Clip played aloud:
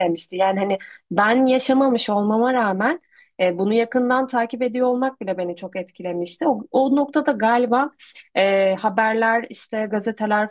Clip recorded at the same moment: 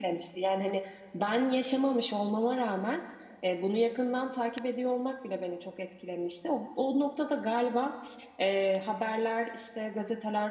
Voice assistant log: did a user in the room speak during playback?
No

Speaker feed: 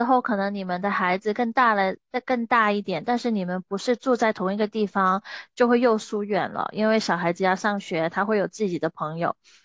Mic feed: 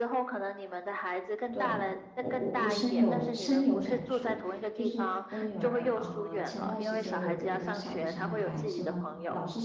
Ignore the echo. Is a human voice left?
Yes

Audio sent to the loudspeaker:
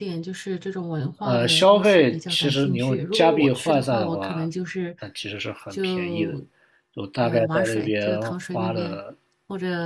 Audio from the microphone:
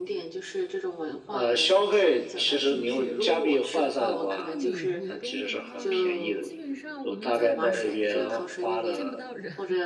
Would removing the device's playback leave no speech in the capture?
No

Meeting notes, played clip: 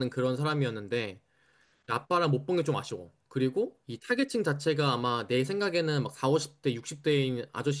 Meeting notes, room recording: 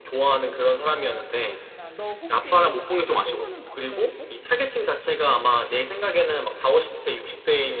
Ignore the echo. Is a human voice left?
Yes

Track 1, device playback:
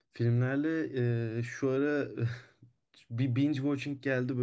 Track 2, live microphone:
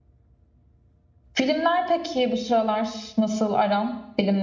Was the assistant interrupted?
Yes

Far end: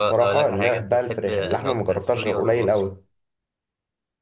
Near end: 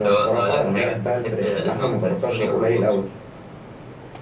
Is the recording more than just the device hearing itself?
No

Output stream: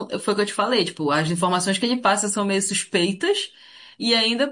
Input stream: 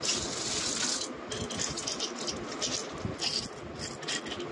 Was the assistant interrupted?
No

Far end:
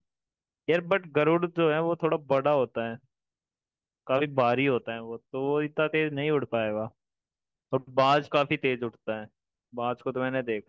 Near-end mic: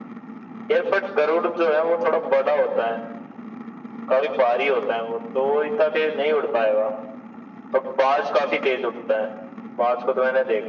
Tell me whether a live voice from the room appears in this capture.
No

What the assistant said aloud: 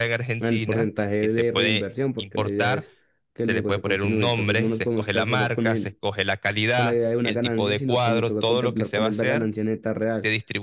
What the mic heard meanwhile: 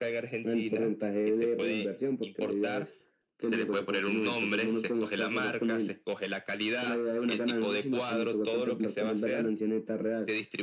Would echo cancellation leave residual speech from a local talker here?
No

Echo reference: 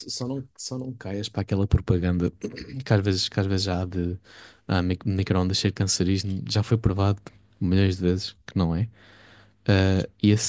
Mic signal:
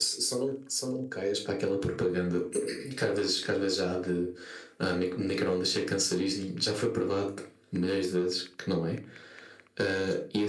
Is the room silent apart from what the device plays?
Yes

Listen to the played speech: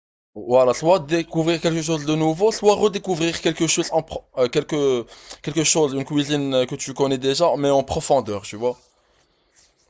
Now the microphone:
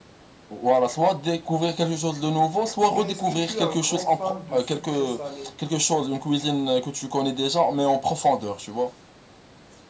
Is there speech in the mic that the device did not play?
Yes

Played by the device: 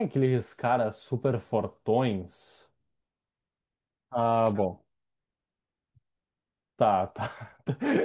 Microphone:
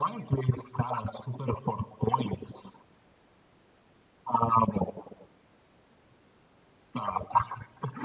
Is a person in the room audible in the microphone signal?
No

